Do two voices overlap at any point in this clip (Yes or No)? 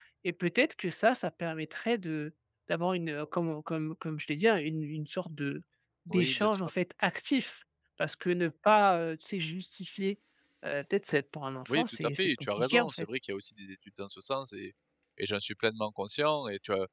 Yes